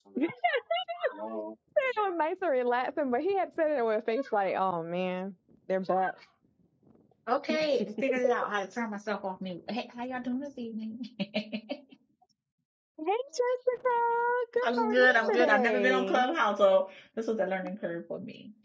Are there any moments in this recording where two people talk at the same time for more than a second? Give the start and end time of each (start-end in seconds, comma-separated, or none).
14.6-16.2